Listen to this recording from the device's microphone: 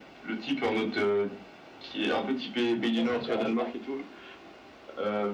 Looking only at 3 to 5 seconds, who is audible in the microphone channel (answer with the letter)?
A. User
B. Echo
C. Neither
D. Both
D